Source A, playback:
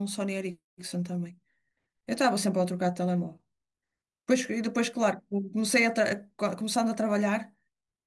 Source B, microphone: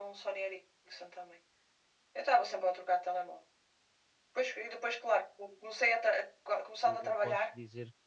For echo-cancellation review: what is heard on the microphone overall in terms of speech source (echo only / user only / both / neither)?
both